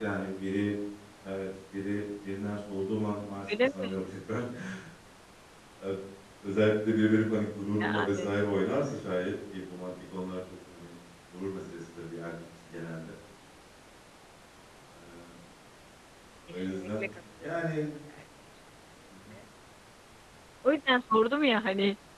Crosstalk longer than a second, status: present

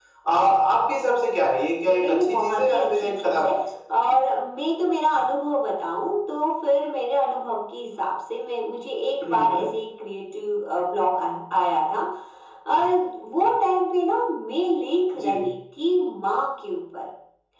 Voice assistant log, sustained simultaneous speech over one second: present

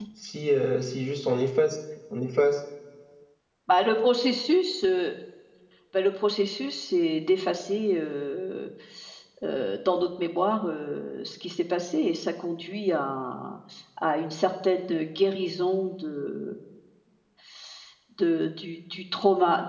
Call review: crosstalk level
none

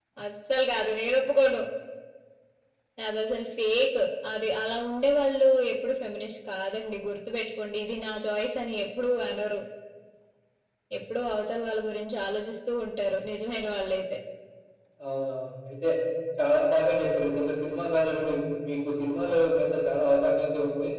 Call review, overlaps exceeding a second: none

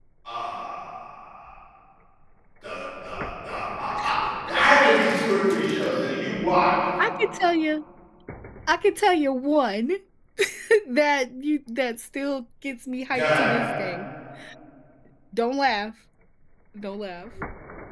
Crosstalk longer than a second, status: none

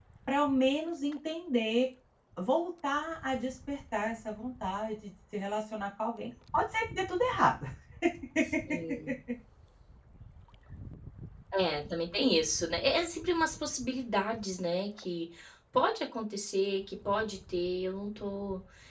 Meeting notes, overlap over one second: none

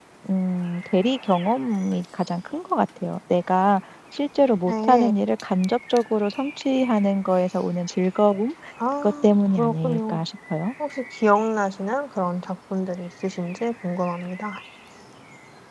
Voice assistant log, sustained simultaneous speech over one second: present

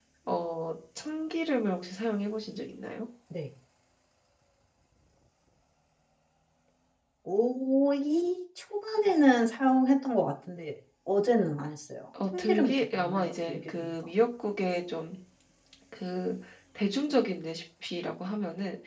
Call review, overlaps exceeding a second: present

